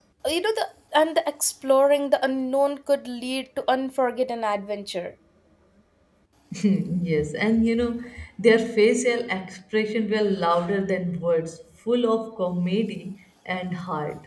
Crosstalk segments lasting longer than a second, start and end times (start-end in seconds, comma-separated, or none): none